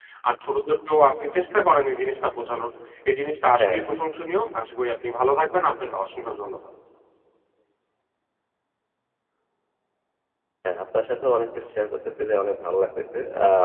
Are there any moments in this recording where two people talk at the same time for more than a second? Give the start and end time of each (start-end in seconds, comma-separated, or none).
none